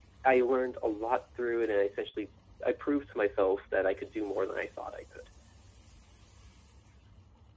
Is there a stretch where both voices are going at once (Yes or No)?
No